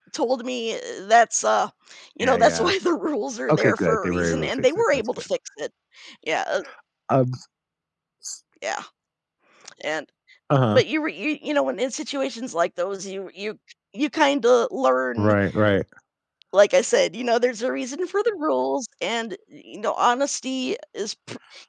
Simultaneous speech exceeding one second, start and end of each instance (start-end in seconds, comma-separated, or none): 3.5-5.1